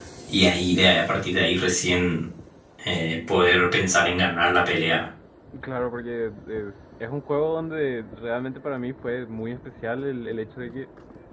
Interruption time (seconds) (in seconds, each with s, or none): none